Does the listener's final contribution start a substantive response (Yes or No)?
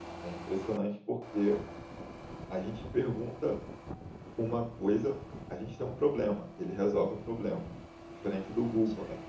No